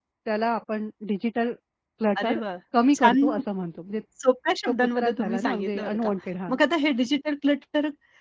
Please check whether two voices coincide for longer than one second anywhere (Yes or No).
Yes